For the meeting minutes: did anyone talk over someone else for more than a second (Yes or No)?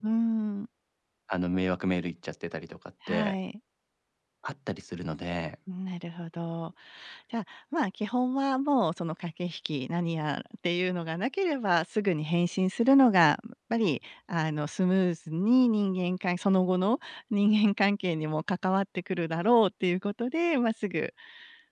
No